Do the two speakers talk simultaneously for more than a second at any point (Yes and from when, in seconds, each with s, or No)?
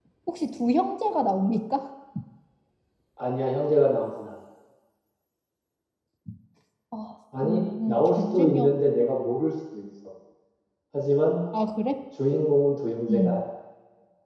Yes, from 7.4 s